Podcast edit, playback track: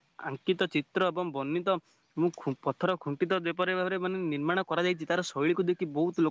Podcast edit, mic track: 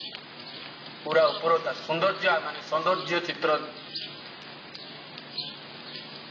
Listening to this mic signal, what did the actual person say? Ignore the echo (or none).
ପୁରା ଉପର ତା ସୌନ୍ଦର୍ଯ୍ୟ ମାନେ ସୌନ୍ଦର୍ଯ୍ୟ ଚିତ୍ର